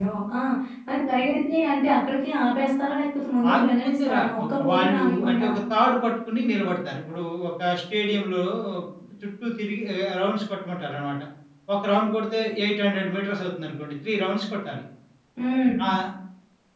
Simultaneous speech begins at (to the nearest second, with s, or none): 3 s